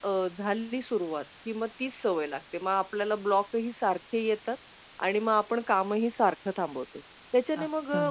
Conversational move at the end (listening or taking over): listening